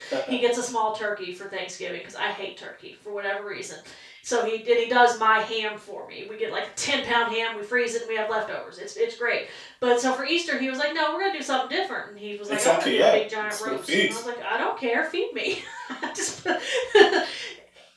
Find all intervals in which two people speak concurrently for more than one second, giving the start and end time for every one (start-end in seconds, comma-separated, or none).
12.5-14.2